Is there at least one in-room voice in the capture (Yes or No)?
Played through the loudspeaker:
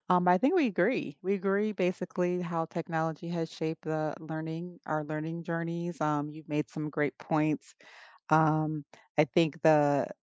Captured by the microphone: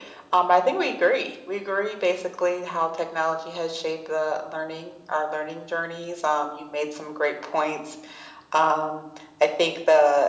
No